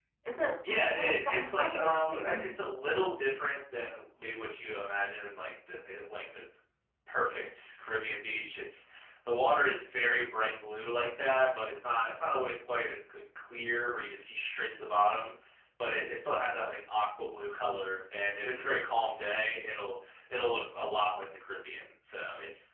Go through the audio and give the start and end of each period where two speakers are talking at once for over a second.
0.7-2.5

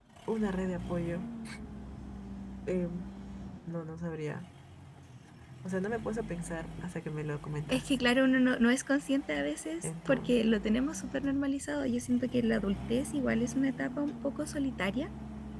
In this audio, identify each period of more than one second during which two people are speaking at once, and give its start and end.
none

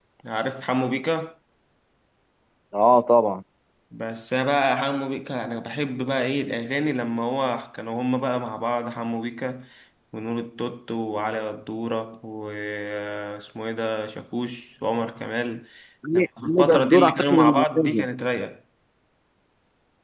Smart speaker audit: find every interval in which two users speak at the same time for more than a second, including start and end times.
16.1-18.1

